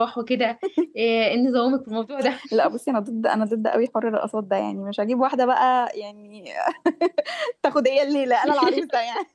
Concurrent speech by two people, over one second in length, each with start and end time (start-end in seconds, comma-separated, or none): none